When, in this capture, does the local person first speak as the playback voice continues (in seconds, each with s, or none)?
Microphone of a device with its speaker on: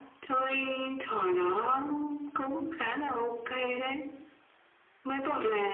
none